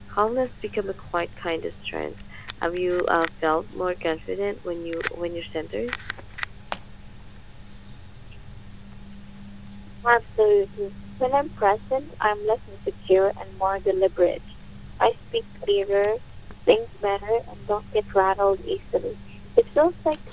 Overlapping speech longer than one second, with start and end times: none

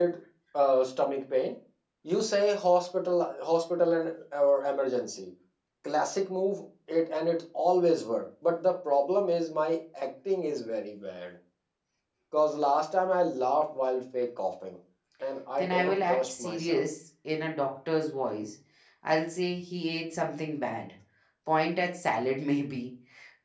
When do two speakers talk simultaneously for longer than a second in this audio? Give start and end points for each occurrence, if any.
15.6-16.9

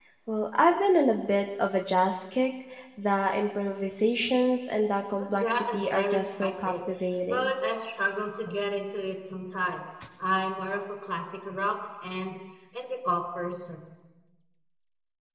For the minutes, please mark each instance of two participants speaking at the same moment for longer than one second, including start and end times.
5.2-6.7

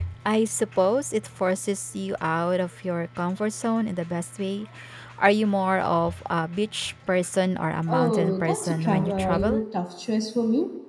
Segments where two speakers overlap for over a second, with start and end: 7.9-9.6

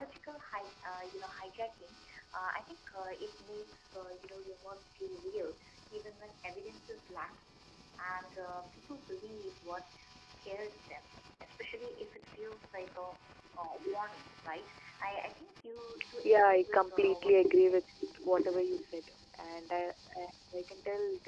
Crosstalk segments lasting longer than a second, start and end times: 16.2-17.8

